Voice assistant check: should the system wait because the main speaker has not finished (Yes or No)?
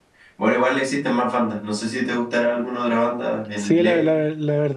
No